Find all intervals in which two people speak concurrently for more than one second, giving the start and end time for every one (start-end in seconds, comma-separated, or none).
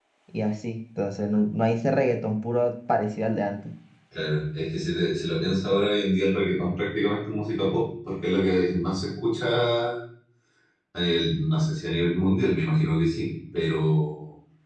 none